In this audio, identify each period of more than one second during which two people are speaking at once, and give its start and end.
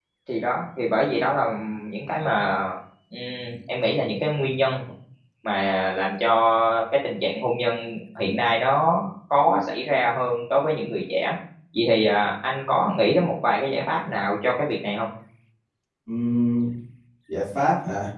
none

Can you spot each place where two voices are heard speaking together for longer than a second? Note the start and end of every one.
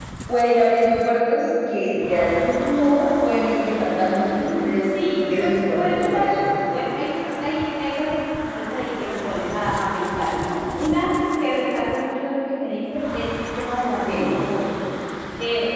5.1-6.3

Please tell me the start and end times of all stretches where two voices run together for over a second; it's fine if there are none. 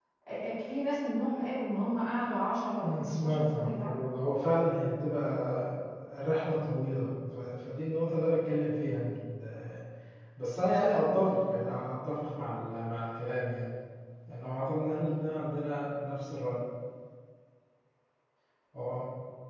2.8-4.1

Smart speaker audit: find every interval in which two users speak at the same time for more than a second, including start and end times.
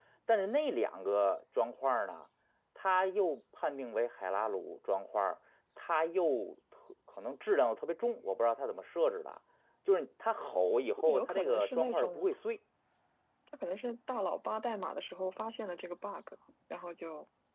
11.0-12.3

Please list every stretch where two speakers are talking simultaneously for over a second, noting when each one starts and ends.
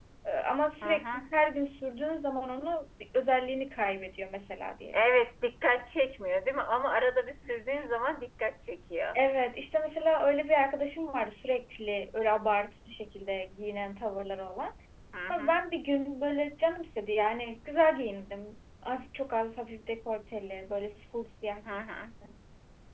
none

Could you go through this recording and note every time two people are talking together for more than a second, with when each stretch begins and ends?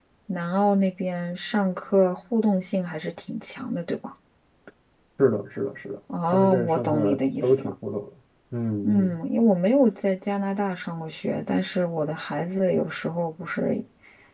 6.2-7.7

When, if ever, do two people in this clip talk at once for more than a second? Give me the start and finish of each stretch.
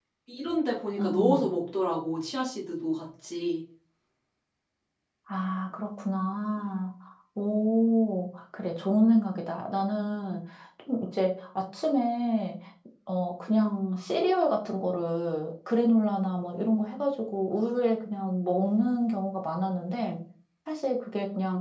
none

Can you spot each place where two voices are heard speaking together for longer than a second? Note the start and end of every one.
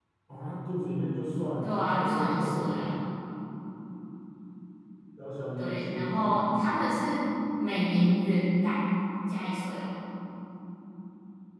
1.6-2.9, 5.6-6.9

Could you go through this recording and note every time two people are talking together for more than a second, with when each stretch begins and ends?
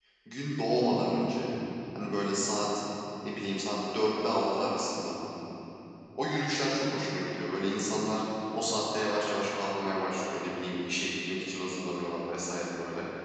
none

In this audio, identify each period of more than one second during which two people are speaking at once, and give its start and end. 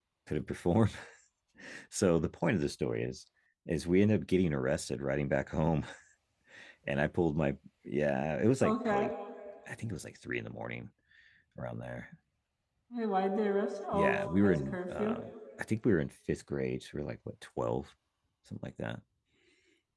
13.9-15.2

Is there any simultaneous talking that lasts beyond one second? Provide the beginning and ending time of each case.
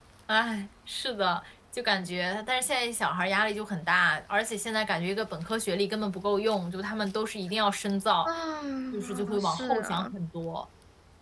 8.9-10.1

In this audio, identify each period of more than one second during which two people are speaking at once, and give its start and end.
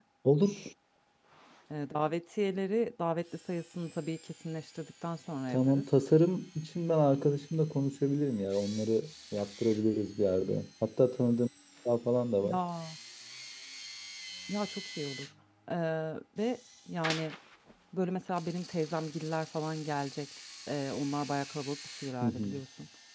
none

